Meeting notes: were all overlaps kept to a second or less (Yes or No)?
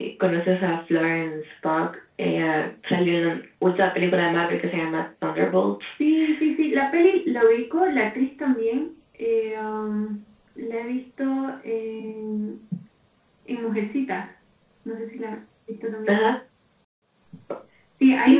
Yes